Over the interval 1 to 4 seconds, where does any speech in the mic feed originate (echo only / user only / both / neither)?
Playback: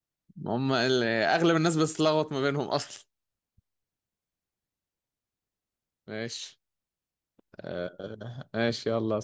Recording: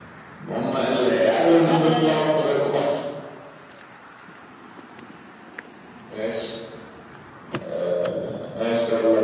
both